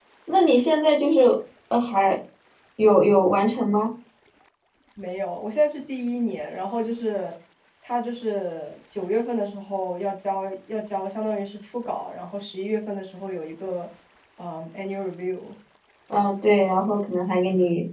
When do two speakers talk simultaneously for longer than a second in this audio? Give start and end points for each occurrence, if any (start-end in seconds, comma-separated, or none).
none